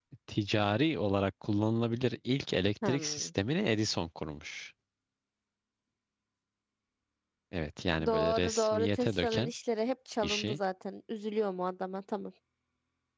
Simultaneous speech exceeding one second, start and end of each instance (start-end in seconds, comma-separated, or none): 8.0-9.5